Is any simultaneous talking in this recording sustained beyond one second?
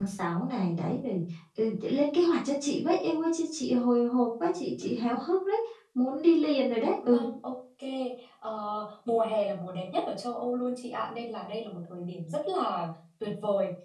No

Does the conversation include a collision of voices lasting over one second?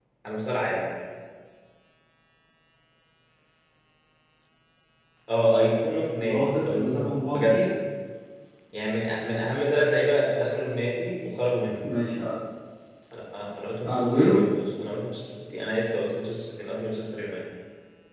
Yes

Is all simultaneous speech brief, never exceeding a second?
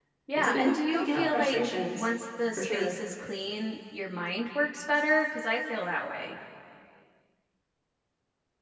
No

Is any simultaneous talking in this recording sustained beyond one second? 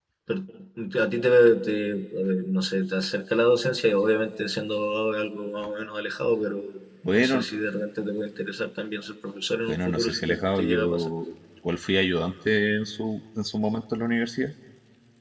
Yes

